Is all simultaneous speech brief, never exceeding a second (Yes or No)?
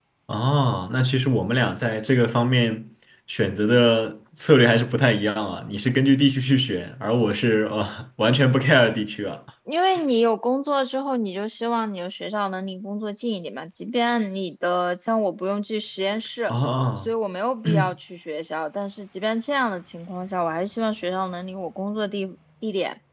Yes